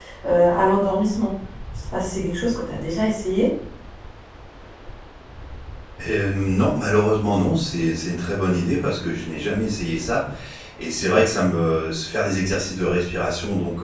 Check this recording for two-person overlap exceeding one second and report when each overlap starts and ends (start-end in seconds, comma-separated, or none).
none